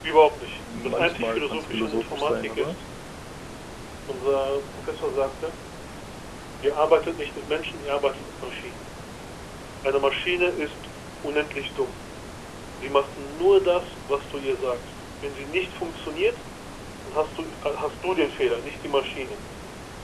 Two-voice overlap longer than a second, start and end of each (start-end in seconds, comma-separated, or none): 0.8-2.7